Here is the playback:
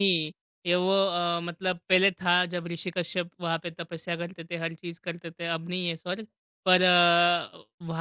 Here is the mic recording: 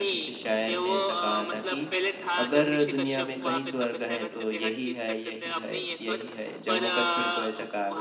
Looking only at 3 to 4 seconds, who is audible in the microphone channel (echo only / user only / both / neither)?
both